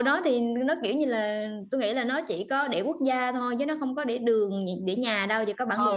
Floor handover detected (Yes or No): Yes